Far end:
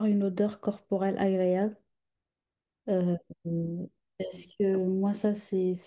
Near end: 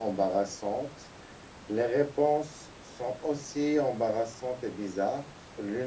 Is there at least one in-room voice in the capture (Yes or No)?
Yes